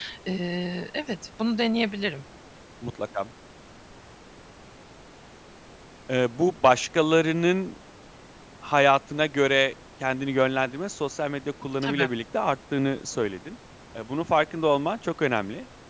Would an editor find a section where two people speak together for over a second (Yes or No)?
No